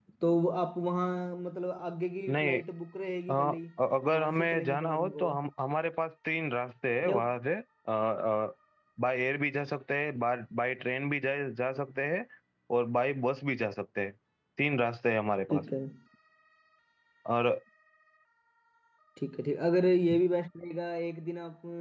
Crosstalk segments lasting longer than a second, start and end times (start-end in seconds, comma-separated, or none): 4.1-5.5